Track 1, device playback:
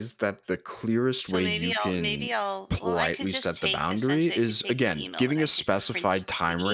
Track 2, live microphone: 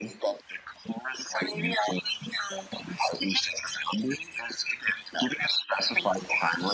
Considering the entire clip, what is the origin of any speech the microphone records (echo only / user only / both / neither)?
echo only